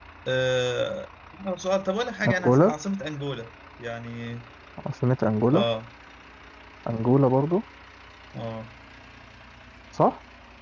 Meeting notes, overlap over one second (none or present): none